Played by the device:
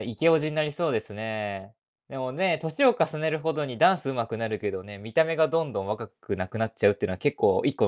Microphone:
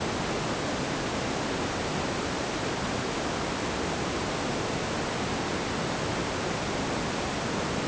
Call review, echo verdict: none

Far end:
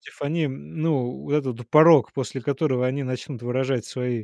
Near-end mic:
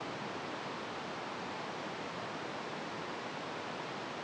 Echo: none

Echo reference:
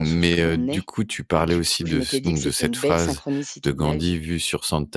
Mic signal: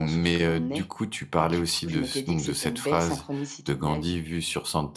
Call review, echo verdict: present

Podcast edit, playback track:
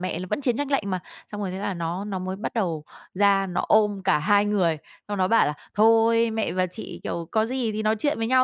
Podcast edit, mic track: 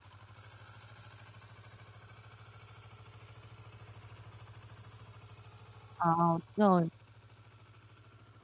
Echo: none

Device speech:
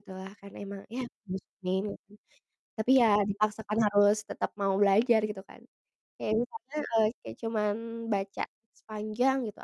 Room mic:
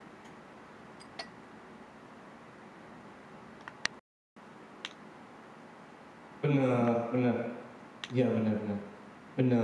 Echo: none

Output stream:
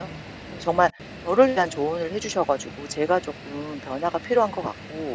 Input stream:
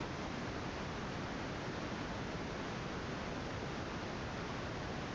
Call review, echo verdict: none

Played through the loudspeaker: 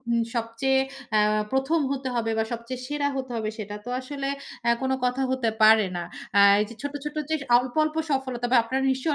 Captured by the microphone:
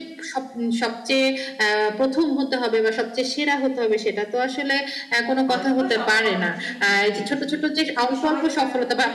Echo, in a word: present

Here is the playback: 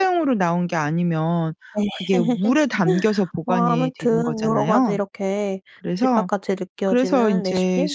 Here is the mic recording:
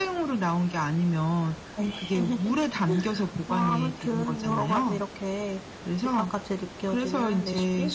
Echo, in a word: present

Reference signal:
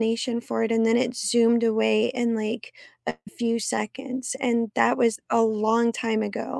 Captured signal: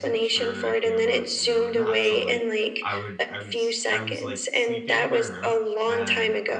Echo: present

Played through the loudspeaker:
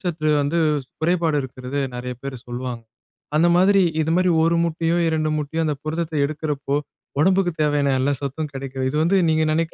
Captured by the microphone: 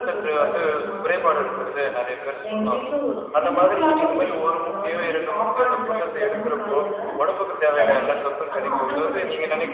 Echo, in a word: present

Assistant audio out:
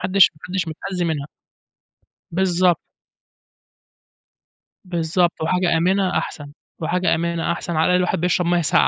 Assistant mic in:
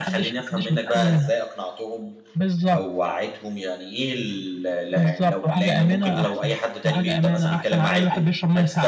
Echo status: present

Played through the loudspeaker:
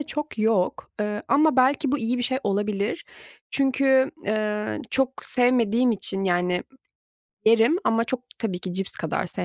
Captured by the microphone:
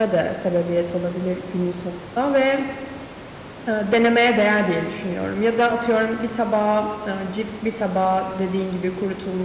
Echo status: none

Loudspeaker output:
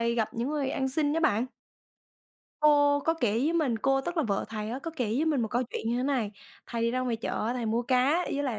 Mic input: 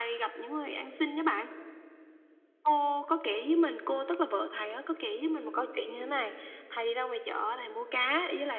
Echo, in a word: present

